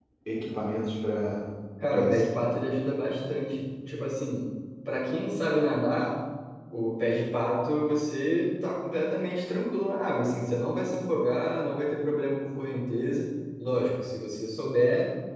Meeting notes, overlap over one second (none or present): none